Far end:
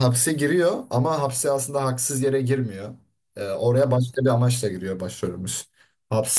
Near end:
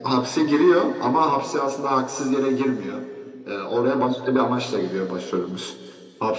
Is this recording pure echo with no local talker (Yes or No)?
Yes